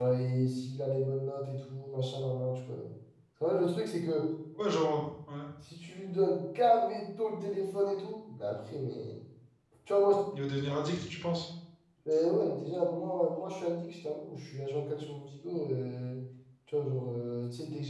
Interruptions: none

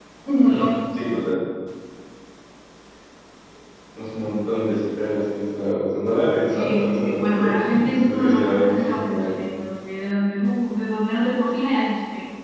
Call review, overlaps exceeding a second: present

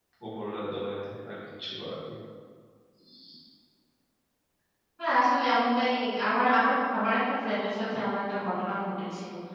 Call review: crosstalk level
none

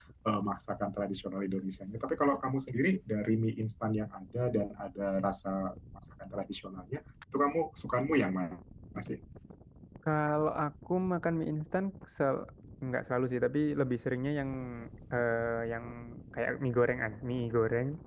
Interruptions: none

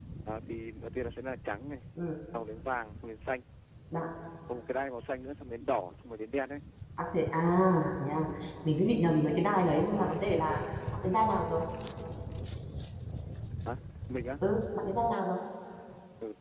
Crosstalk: none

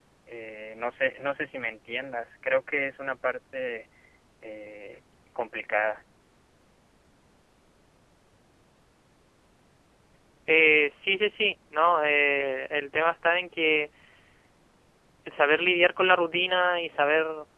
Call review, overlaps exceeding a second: none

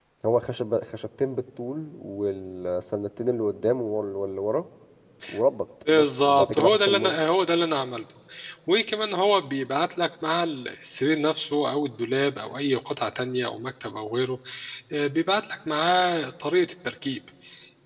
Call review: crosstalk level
present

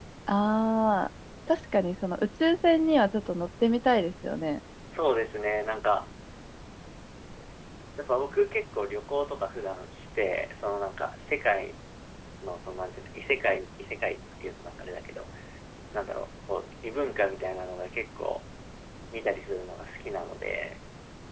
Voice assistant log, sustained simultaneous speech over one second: none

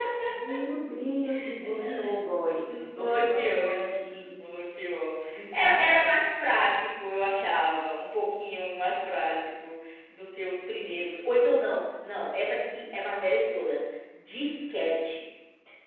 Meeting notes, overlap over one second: present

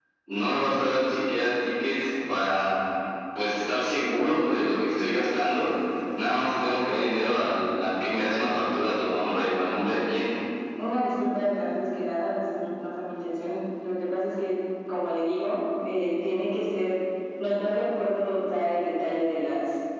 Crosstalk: none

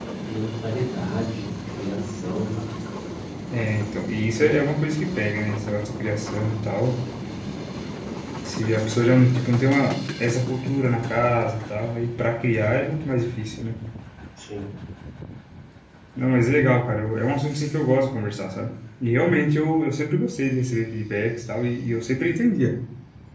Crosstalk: none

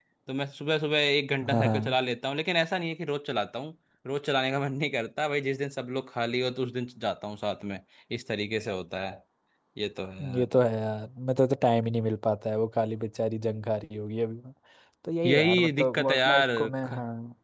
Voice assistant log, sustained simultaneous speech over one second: present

